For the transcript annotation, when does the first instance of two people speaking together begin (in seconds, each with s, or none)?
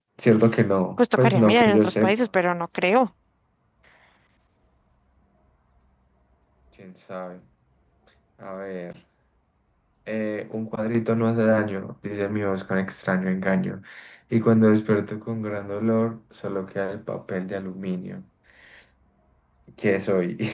1.0 s